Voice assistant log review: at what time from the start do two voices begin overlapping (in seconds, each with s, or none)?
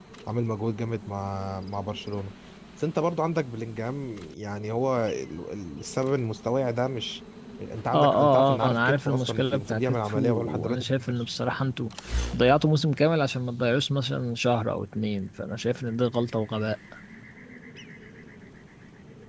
7.9 s